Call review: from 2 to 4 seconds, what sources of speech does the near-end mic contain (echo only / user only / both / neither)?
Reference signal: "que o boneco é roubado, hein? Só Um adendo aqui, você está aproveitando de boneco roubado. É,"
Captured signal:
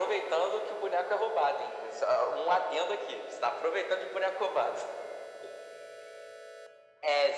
echo only